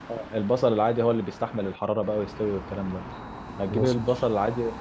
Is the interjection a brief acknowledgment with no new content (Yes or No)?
Yes